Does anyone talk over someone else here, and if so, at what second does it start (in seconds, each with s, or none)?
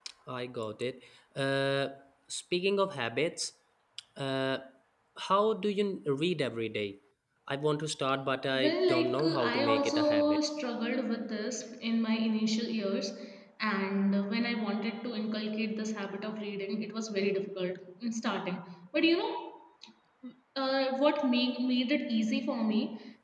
8.5 s